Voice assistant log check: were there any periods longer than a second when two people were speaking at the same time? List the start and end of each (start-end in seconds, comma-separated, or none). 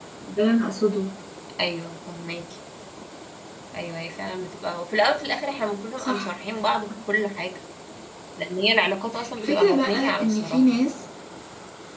9.4-10.8